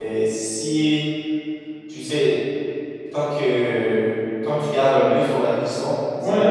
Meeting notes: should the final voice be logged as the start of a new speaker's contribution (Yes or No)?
Yes